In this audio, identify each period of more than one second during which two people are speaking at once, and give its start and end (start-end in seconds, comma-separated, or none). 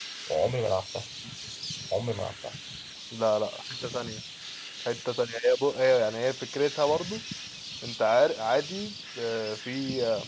none